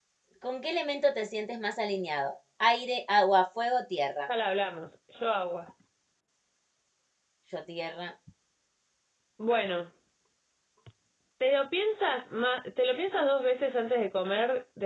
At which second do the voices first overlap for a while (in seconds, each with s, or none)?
none